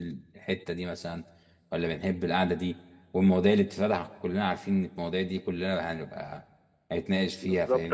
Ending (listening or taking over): taking over